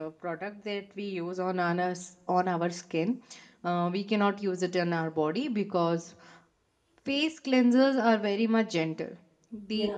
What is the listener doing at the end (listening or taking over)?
listening